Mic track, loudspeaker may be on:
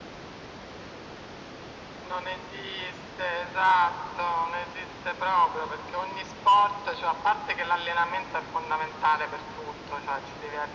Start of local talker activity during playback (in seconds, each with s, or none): none